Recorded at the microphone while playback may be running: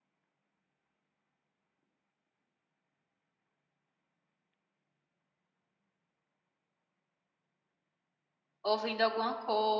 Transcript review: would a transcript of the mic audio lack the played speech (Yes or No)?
Yes